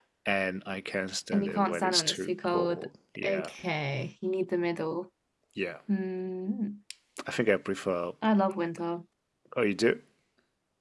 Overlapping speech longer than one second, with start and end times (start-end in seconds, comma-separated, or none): 1.3-2.9